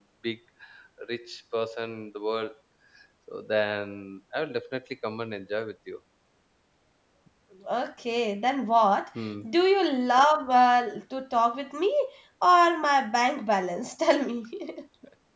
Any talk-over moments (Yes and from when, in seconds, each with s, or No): No